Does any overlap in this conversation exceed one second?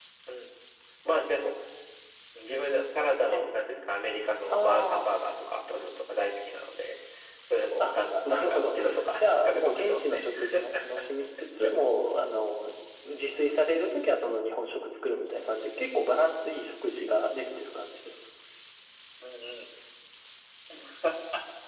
Yes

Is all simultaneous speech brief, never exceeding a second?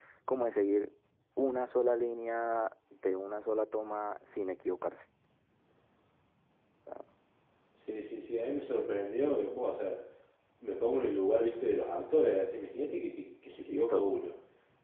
Yes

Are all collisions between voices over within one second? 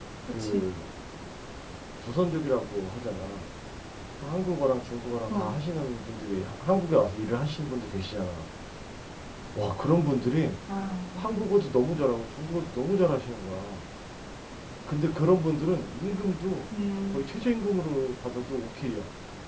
Yes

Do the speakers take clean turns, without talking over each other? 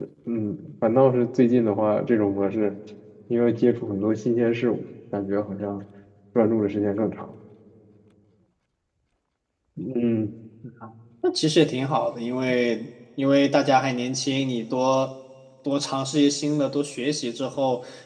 Yes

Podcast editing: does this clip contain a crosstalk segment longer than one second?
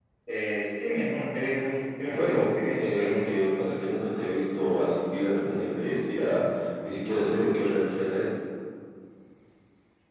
Yes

